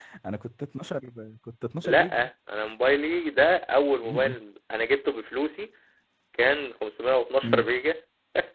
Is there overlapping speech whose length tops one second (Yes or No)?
No